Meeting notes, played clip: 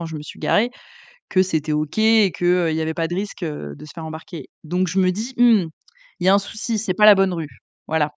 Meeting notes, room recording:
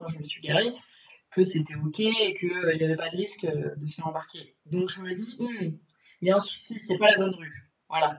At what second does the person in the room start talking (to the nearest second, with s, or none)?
none